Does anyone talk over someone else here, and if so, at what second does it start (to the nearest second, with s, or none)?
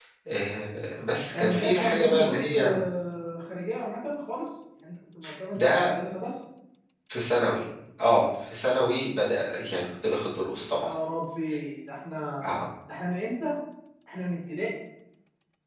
1 s